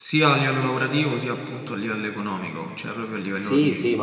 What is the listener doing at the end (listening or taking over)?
taking over